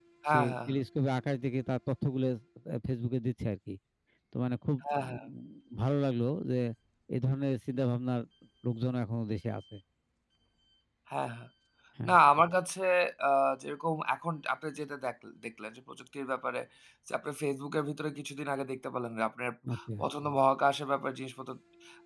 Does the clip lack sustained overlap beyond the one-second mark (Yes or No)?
Yes